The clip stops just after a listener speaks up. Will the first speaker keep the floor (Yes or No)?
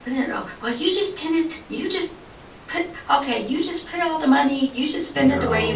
Yes